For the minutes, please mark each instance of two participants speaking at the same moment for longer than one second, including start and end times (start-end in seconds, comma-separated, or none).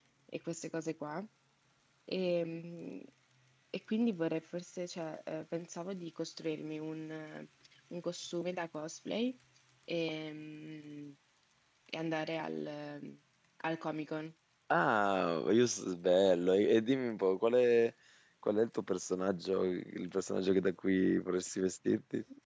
none